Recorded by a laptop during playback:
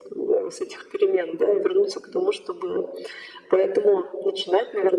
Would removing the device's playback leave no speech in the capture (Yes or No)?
Yes